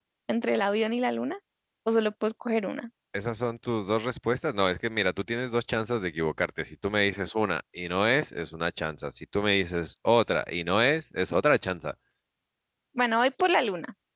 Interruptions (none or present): none